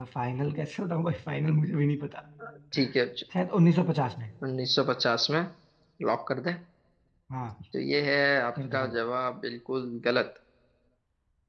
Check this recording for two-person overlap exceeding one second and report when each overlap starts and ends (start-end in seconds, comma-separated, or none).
none